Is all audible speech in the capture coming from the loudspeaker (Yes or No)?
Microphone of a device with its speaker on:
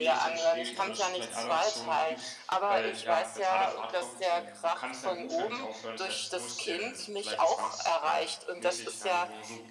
No